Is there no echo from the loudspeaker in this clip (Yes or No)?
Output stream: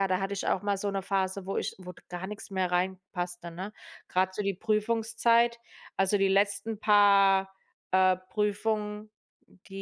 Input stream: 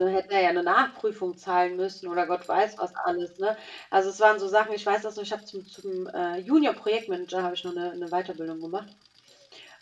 Yes